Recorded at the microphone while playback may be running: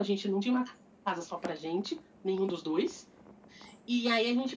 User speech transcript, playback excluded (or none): none